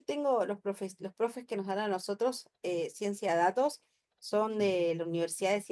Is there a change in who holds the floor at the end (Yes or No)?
No